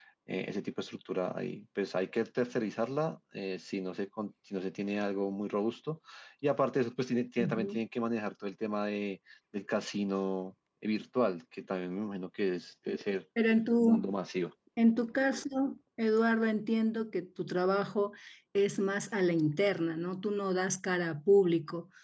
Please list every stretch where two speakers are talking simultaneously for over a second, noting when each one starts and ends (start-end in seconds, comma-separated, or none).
none